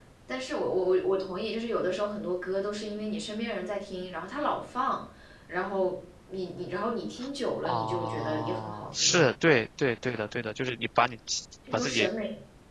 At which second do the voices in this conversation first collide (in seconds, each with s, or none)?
7.6 s